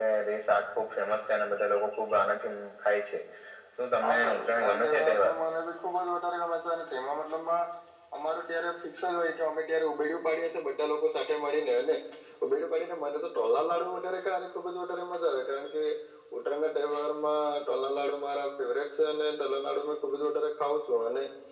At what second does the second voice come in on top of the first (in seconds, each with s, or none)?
4.0 s